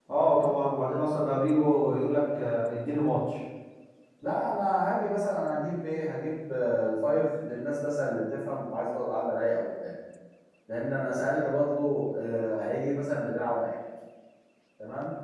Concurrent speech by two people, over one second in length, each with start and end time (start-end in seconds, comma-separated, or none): none